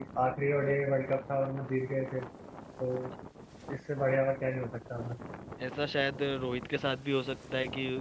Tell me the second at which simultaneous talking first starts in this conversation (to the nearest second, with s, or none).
none